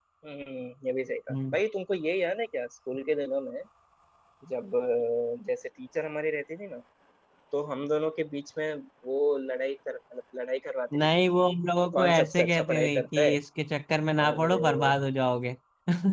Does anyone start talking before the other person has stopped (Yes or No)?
Yes